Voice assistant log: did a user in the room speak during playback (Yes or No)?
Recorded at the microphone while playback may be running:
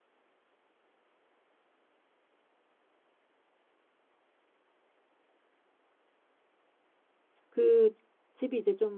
Yes